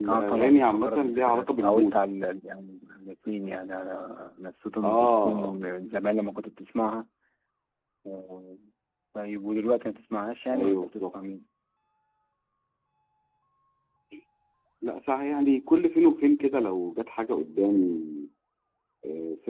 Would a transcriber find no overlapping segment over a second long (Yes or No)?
No